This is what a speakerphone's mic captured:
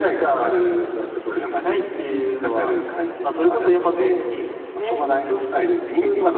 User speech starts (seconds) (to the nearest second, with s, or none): none